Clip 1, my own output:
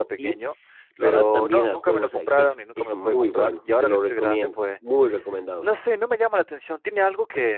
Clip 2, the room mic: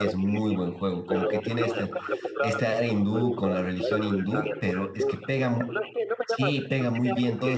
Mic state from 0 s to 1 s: both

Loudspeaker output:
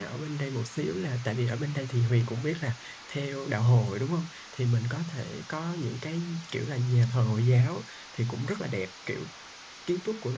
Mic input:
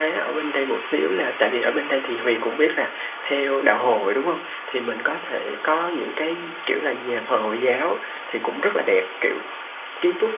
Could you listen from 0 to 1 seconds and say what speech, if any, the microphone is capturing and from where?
echo only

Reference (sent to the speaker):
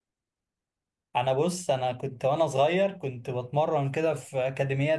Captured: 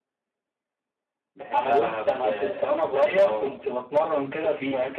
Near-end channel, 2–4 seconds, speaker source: both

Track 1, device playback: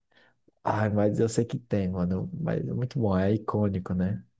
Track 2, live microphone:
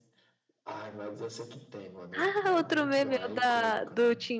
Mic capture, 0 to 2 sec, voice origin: echo only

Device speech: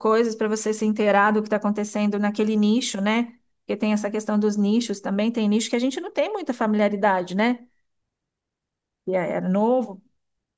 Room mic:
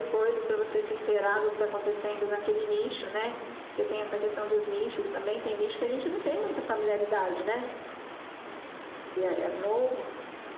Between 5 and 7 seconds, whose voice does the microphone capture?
echo only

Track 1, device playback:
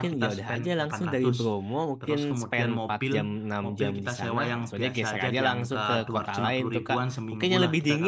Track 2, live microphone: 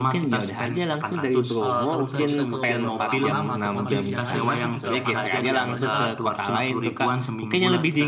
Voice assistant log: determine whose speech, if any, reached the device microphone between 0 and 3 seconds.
both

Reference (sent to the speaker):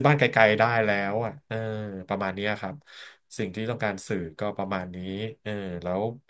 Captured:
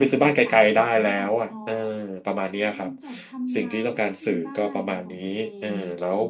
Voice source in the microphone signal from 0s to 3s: both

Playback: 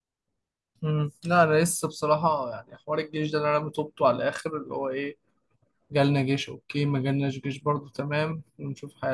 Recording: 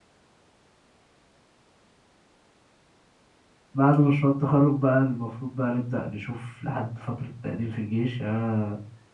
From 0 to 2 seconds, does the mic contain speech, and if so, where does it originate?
neither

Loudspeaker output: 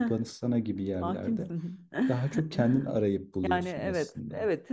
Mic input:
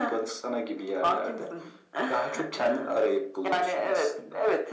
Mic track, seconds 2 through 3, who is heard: echo only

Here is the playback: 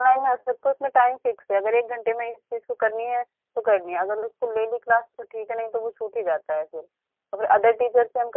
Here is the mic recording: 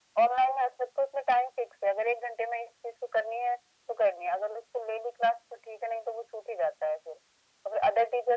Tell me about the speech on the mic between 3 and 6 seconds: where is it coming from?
echo only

